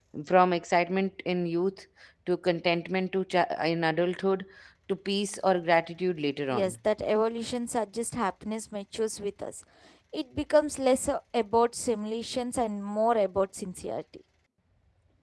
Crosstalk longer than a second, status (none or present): none